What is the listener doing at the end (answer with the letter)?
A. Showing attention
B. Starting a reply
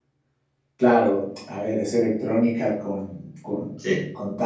A